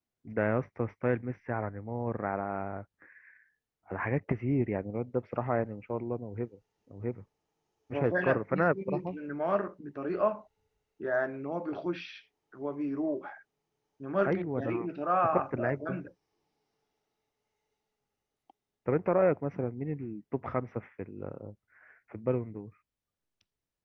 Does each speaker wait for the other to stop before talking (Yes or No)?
No